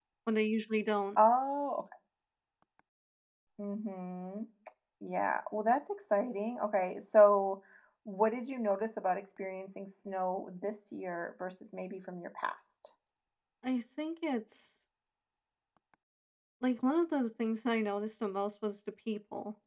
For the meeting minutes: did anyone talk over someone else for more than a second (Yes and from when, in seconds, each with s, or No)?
No